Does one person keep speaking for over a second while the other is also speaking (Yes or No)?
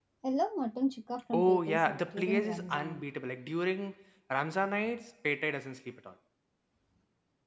Yes